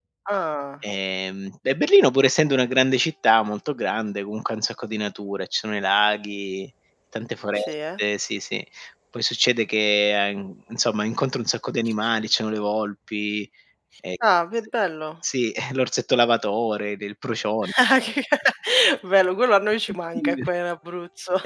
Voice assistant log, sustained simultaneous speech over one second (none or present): none